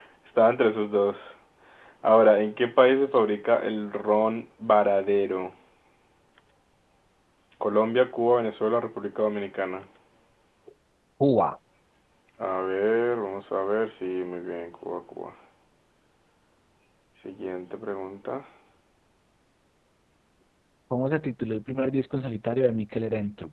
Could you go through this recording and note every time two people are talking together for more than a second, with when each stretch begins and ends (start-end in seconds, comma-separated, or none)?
none